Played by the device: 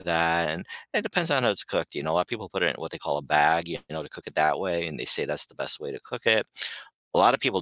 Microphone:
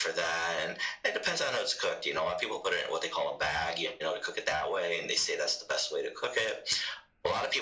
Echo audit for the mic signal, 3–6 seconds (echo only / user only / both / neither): echo only